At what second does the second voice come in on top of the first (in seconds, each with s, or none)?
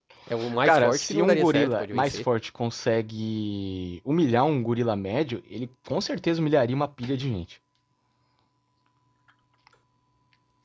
0.7 s